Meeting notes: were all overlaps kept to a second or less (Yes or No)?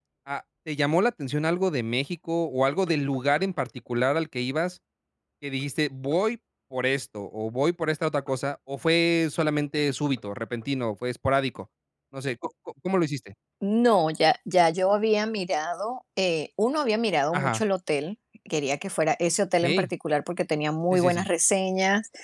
Yes